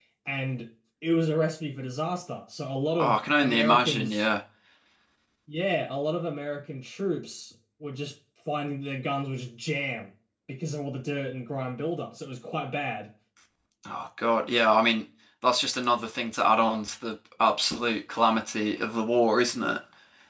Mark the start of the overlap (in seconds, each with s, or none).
3.0 s